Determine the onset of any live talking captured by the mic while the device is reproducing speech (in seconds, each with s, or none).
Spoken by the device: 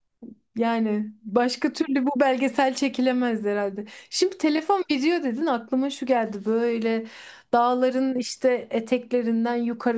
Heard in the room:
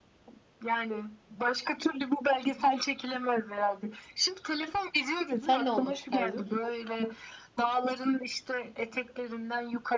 5.4 s